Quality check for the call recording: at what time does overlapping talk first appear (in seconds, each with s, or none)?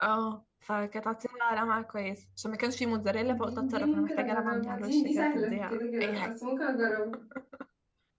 3.3 s